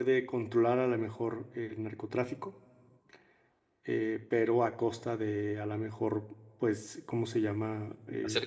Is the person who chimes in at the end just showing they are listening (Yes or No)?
No